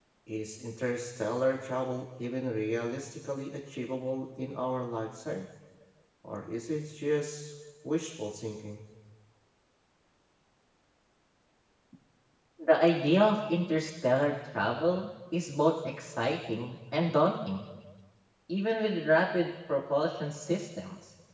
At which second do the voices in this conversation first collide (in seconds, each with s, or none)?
none